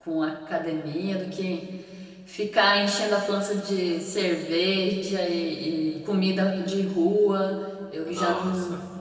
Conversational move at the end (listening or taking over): listening